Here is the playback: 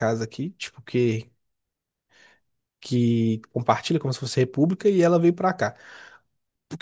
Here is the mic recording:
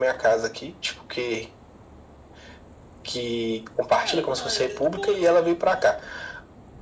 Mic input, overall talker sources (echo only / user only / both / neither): both